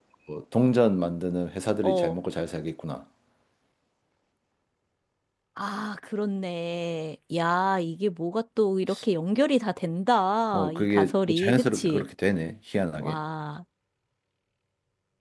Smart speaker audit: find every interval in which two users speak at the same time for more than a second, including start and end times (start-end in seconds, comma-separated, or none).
10.5-12.1